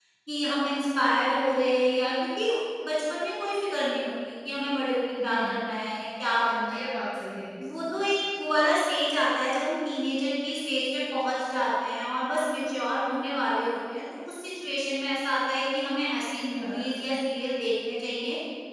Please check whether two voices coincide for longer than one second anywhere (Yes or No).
No